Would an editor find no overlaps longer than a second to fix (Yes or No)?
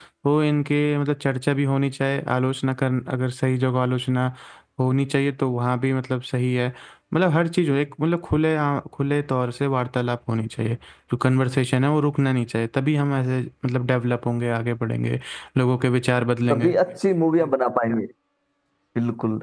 Yes